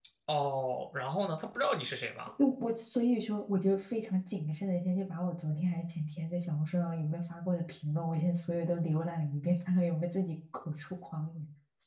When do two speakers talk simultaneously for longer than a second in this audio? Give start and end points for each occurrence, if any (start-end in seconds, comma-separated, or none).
none